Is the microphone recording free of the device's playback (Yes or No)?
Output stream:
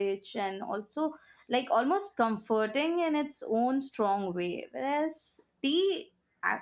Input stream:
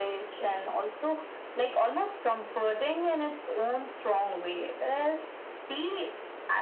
No